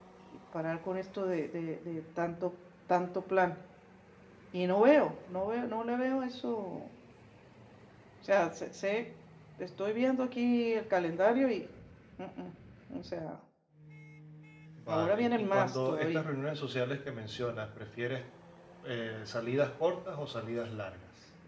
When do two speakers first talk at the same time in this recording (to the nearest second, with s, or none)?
15 s